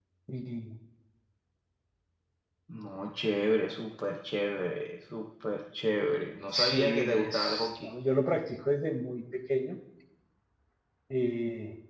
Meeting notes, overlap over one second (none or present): present